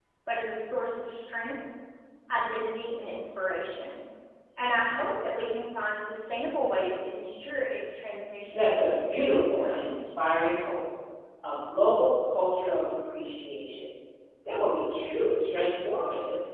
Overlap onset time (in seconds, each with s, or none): 8.5 s